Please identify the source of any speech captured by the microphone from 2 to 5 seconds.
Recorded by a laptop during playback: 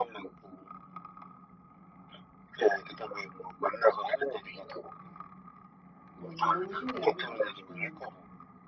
echo only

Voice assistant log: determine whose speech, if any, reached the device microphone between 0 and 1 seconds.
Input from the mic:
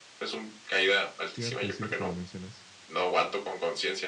echo only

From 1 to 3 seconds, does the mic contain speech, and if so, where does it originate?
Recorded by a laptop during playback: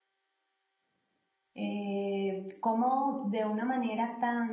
user only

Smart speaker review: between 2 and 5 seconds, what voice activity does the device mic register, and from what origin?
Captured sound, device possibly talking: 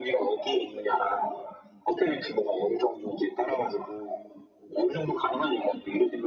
echo only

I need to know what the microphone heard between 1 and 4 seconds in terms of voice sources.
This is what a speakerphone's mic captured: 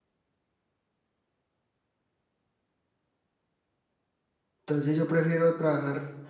neither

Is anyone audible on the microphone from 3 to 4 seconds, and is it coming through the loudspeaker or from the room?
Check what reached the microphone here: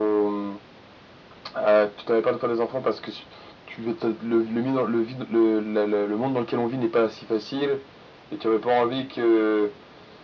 echo only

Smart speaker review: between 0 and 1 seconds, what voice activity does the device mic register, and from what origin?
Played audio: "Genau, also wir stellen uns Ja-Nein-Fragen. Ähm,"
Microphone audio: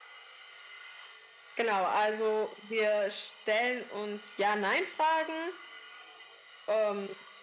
neither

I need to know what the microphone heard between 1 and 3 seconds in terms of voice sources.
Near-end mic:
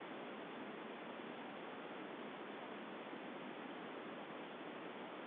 neither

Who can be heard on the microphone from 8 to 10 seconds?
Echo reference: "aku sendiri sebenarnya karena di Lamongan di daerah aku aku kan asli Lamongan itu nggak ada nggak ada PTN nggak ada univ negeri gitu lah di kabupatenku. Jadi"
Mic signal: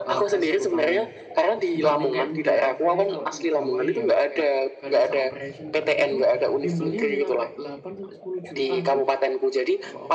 both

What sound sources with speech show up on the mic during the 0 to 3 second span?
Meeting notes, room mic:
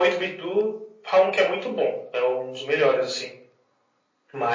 echo only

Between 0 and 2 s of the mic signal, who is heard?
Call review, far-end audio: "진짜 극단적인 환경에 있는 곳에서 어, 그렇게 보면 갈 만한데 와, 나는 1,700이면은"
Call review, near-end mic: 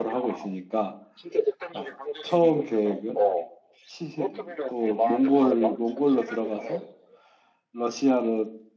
both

